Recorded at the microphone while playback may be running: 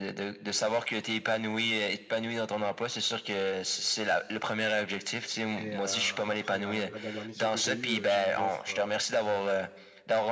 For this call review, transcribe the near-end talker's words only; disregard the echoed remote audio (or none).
Et euh, après la, la dernière mission que j'ai eue, euh, j'ai eu une offre euh,